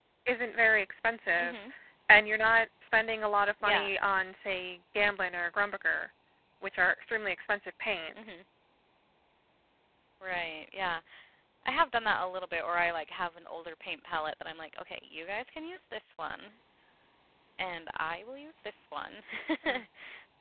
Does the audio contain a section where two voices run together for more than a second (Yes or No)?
No